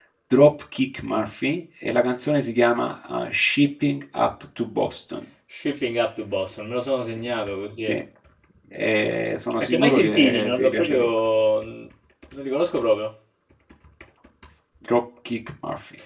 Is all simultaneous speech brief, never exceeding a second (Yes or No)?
No